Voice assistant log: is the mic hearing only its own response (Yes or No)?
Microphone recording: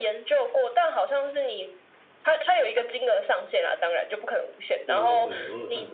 No